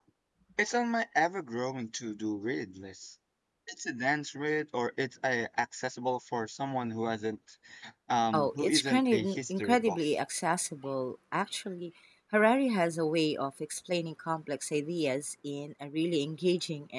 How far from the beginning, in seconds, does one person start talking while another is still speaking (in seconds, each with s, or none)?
8.3 s